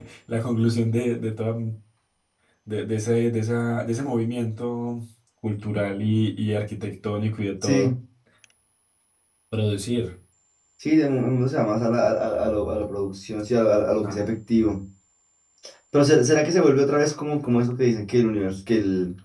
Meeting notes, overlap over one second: none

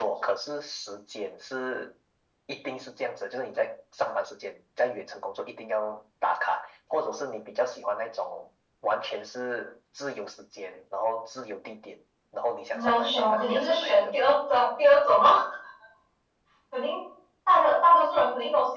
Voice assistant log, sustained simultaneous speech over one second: present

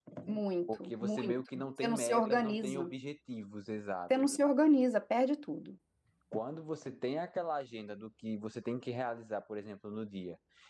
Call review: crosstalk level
present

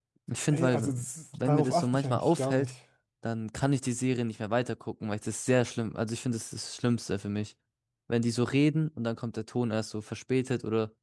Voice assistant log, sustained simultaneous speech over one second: present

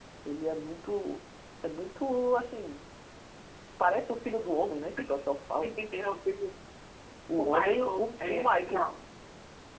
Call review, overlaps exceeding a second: present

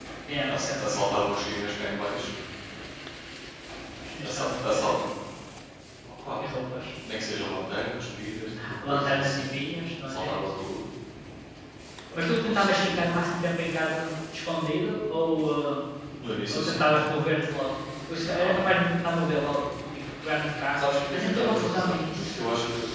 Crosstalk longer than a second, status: present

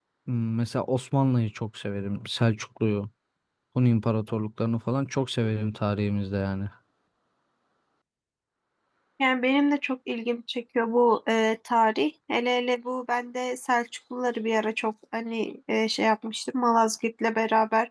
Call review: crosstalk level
none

